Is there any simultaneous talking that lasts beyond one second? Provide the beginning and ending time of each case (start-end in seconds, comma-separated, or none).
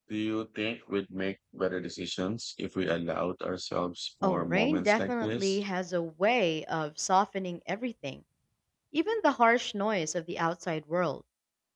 4.2-5.6